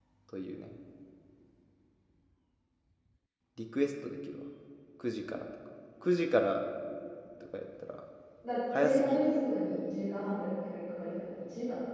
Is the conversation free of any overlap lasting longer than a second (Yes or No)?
Yes